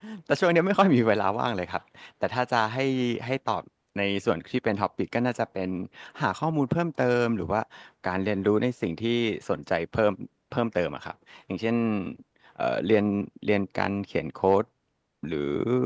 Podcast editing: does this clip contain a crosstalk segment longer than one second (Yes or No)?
No